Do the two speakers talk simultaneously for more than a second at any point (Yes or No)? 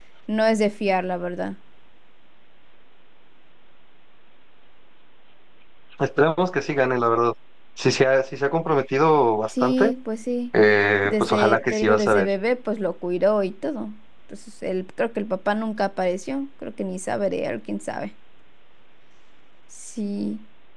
Yes